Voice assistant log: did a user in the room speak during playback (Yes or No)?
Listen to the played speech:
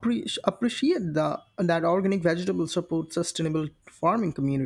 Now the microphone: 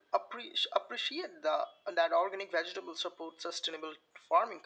No